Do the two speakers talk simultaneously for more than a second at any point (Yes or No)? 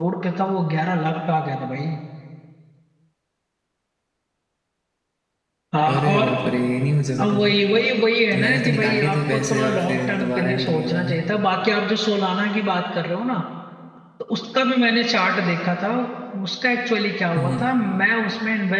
Yes